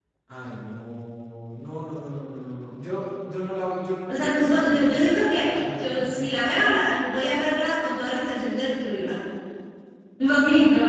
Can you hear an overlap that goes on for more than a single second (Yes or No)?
Yes